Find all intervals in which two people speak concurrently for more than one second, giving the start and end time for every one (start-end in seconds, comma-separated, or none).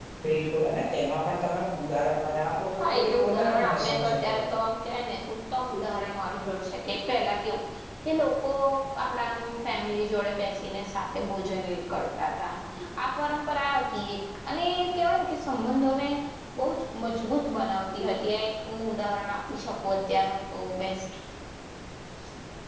2.8-4.4